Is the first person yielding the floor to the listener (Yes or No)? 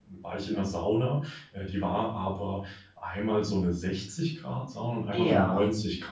No